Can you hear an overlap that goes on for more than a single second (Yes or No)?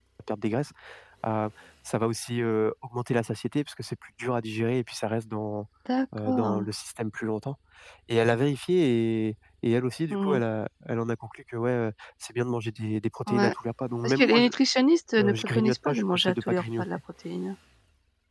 Yes